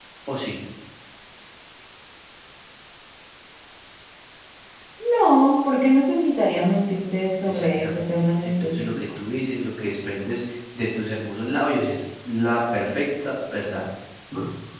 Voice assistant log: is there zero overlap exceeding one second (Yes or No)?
No